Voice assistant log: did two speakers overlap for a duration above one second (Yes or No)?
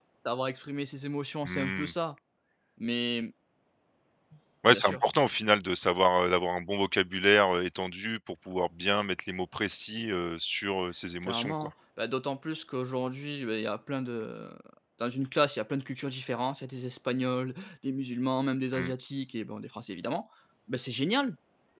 No